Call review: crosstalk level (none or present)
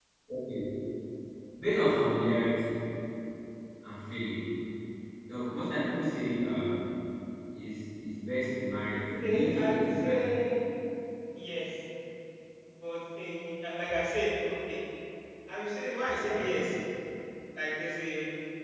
present